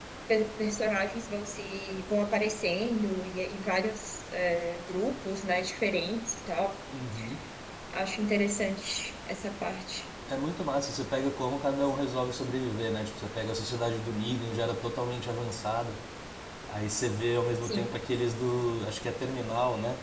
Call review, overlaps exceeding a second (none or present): none